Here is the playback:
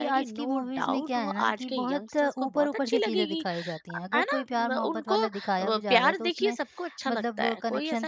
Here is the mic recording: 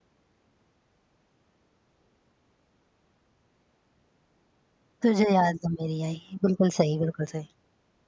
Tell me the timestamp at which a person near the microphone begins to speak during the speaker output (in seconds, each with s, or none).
5.0 s